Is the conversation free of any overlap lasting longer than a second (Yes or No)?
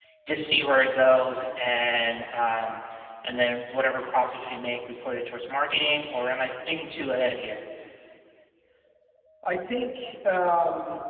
Yes